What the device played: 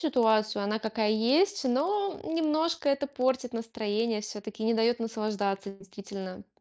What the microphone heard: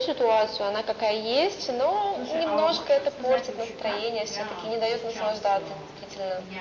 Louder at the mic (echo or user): echo